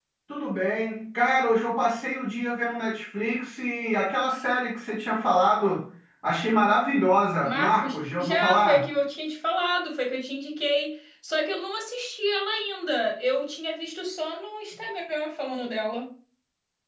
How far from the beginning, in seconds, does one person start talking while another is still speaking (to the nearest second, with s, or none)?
7 s